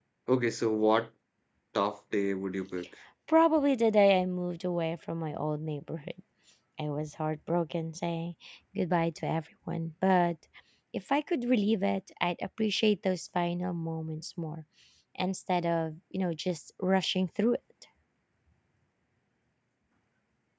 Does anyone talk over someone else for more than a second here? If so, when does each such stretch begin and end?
none

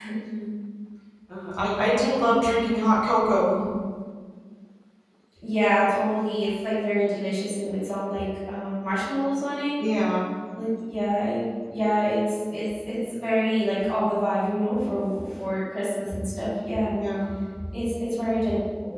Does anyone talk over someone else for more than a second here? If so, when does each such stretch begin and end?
none

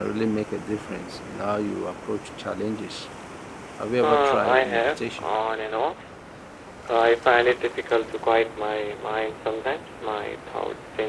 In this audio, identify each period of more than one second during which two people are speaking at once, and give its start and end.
4.0-5.2

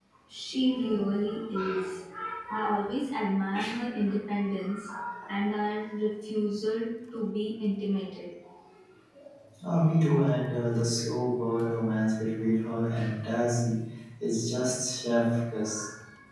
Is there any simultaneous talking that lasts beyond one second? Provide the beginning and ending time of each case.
none

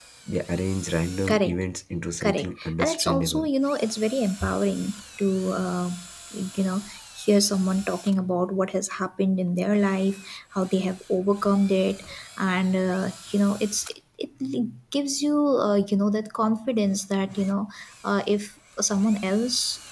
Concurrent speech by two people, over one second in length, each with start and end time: 2.2-3.5

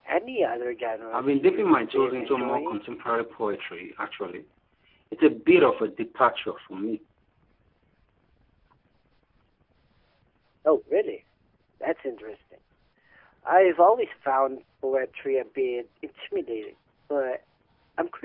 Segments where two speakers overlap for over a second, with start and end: 1.1-2.8

